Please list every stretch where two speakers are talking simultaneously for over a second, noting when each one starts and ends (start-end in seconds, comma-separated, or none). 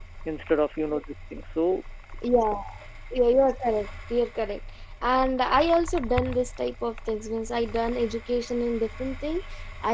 none